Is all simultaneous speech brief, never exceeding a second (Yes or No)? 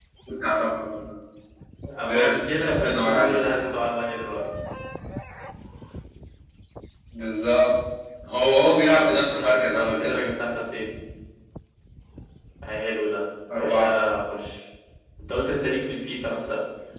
No